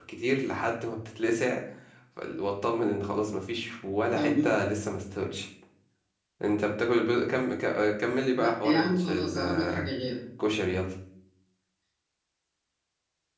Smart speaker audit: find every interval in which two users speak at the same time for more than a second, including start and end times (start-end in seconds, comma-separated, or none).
8.3-9.8